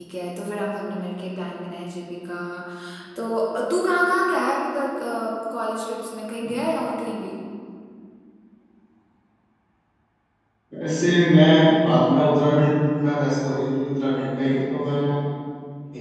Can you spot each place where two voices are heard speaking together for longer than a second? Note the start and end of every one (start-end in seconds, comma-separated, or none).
none